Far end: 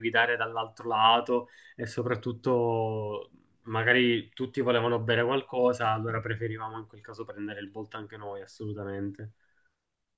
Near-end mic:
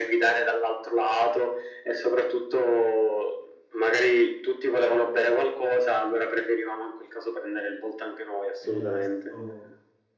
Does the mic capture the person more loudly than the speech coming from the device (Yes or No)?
No